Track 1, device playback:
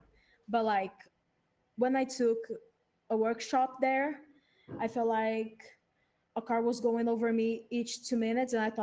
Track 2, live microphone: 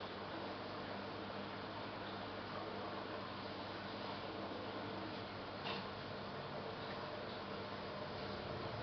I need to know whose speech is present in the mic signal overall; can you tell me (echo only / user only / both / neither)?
neither